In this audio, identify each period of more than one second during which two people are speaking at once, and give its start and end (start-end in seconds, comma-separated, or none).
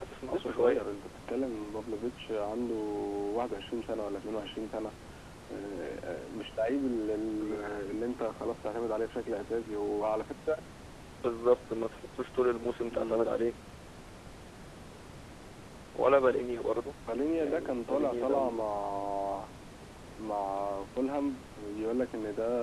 17.4-18.6